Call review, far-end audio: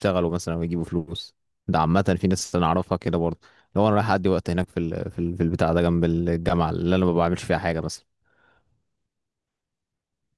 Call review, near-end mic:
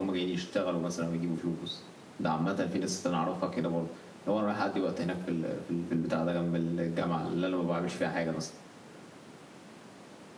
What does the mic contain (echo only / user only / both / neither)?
echo only